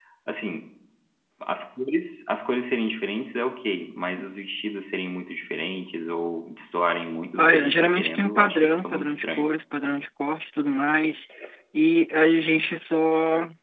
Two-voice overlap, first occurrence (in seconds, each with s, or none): 7.4 s